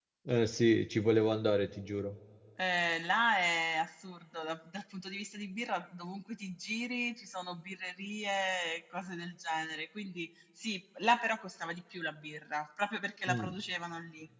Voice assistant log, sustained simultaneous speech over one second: none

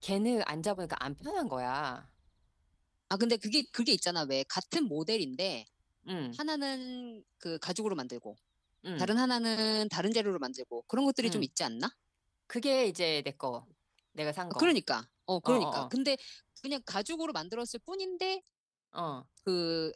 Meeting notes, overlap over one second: none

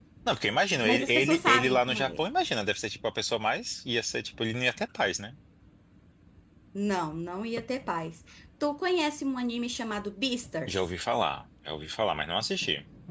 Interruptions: present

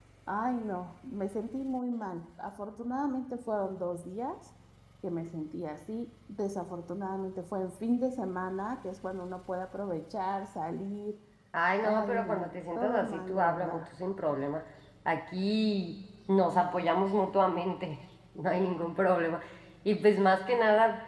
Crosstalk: present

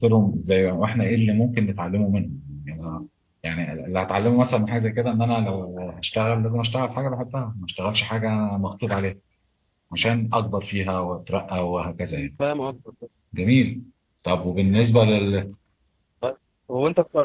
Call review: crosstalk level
none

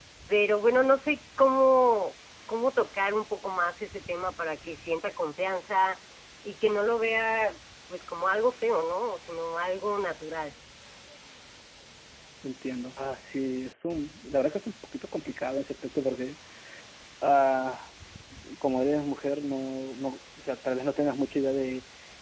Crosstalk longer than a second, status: none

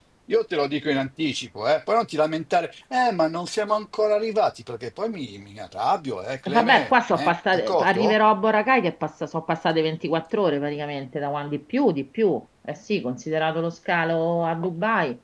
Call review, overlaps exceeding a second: present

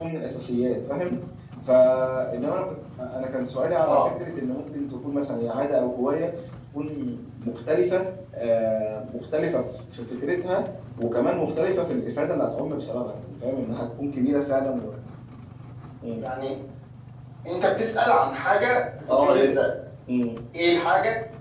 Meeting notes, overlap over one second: none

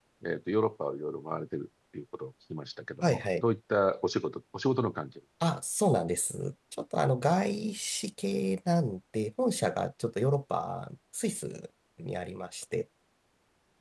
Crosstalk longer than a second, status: none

